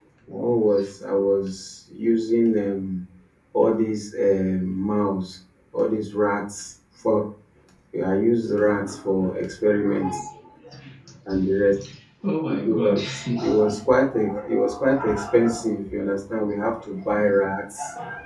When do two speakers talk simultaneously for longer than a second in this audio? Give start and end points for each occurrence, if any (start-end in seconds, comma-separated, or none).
12.5-13.8